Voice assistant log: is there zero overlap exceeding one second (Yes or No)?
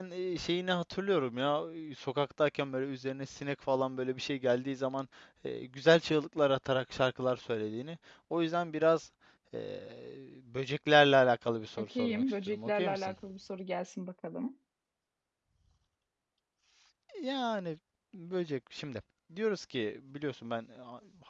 No